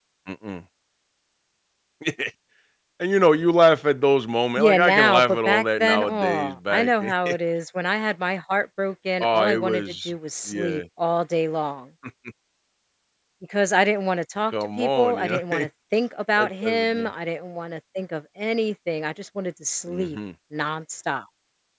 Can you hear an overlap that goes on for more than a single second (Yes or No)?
Yes